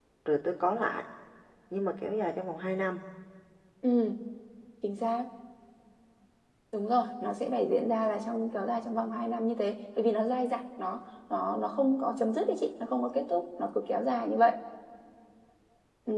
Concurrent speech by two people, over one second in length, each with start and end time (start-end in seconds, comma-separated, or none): none